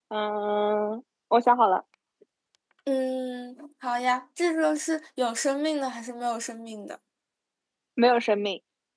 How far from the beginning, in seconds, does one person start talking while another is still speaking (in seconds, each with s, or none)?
none